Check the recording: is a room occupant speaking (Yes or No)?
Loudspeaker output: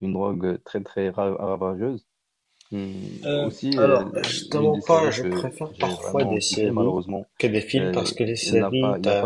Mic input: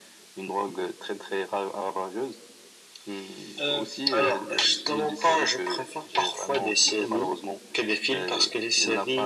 No